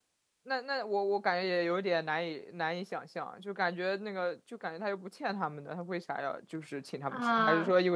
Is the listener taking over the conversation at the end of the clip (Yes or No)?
Yes